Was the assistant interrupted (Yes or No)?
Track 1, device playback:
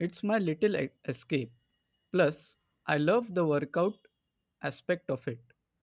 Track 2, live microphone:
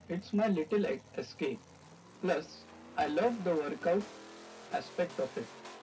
No